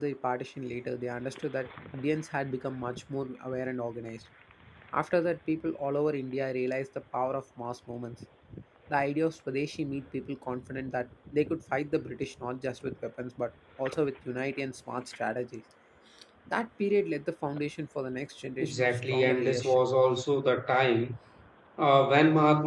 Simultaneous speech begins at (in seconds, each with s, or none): 18.6 s